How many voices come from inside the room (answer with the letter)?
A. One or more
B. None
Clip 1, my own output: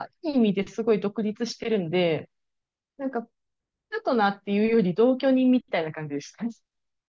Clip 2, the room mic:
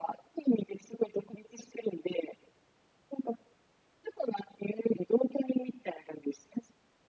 B